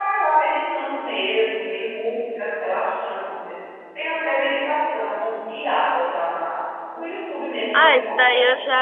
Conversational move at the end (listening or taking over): taking over